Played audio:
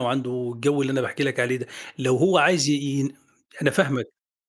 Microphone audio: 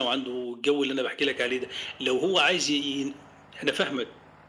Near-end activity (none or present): none